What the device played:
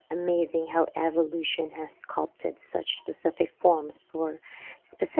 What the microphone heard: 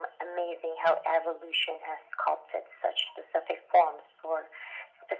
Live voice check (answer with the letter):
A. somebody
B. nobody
B